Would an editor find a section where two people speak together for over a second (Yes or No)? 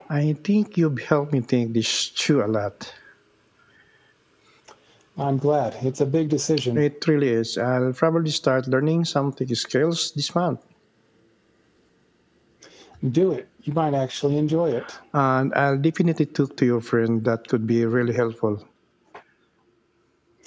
No